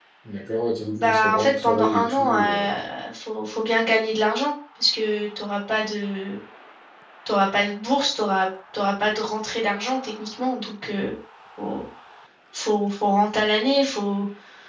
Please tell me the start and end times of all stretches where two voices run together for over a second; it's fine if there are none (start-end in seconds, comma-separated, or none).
0.9-2.7